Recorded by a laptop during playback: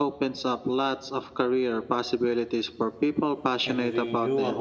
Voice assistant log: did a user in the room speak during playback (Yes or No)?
Yes